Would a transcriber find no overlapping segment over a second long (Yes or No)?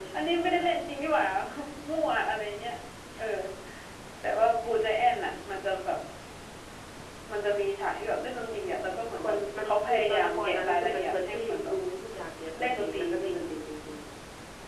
No